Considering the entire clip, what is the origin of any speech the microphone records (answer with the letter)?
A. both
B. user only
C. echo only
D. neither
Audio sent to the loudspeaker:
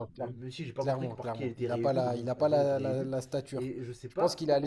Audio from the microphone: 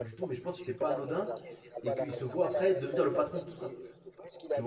A